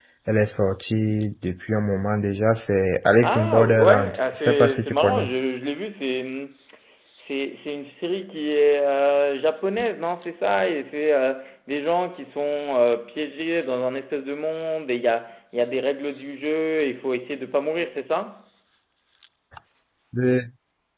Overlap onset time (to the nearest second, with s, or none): 3 s